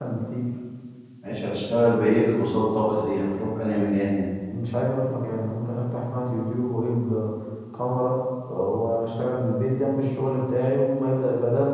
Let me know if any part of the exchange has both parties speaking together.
No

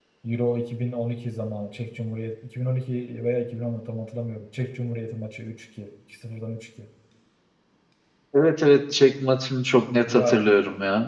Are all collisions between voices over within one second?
Yes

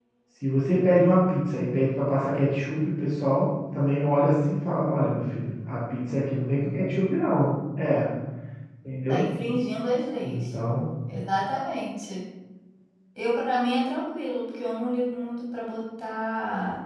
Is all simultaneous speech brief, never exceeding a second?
Yes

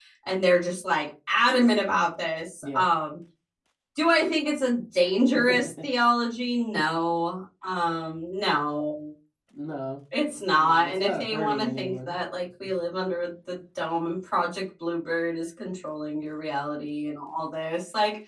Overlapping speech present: Yes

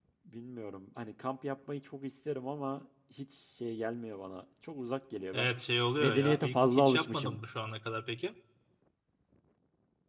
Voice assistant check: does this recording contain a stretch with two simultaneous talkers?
Yes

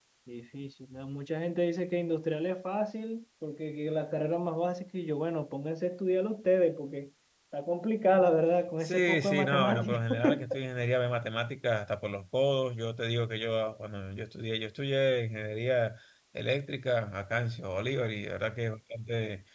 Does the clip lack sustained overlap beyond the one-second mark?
No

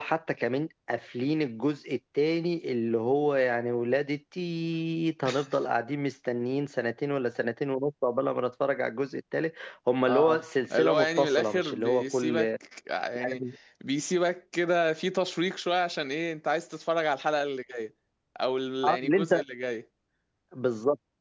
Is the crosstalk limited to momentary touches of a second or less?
No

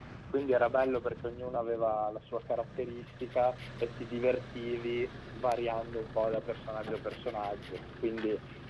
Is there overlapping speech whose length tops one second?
No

